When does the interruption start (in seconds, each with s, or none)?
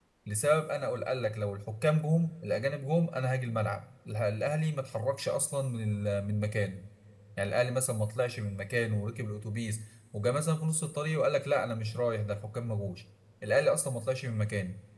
none